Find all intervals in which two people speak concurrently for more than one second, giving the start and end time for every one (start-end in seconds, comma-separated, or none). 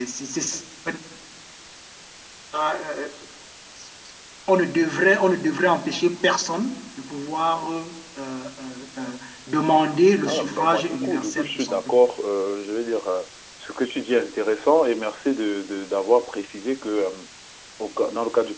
10.3-12.0